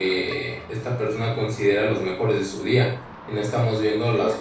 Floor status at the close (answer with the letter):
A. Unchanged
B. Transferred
A